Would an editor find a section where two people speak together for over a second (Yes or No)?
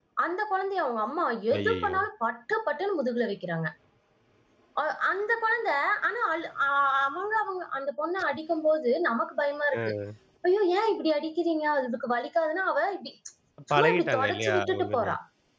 Yes